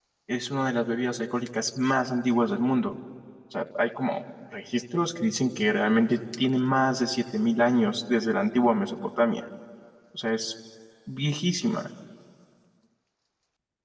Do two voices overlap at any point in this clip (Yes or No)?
No